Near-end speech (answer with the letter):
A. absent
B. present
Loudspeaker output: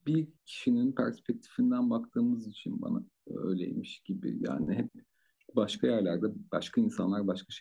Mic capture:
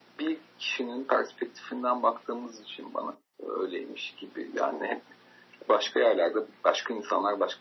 A